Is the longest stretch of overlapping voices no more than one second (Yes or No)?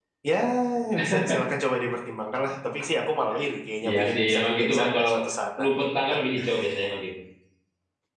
No